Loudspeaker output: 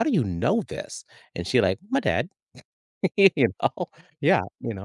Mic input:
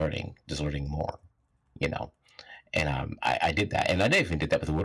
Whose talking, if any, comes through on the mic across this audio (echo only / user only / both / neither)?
user only